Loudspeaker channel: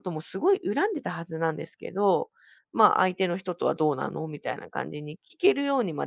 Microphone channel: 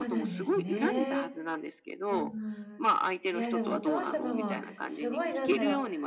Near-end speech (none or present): present